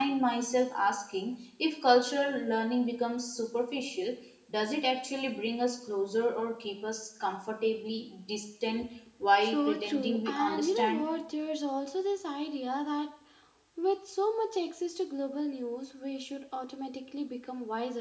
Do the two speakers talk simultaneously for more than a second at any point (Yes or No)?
Yes